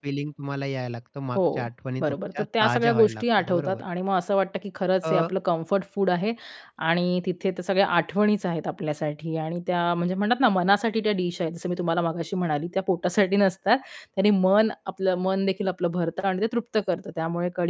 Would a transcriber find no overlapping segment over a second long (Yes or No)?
No